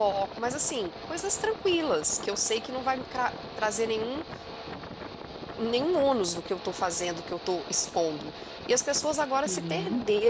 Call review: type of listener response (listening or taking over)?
listening